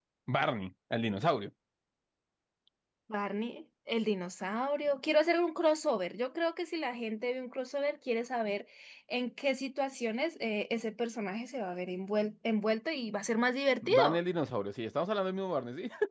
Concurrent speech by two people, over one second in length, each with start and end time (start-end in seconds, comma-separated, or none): none